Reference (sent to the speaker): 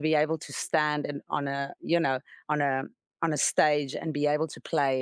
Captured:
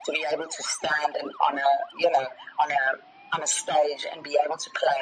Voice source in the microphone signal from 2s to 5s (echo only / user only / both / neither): echo only